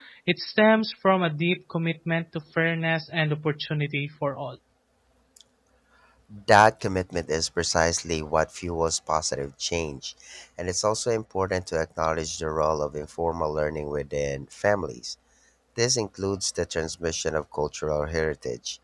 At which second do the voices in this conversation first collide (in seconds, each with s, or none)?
none